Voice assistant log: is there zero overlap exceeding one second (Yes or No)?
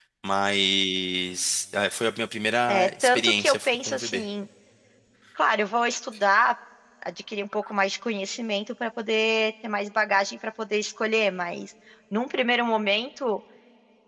No